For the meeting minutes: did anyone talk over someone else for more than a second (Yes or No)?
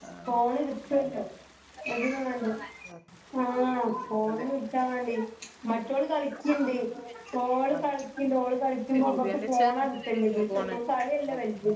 Yes